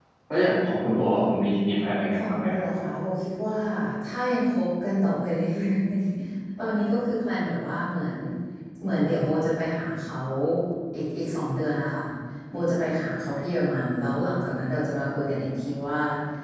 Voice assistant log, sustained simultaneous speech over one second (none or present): none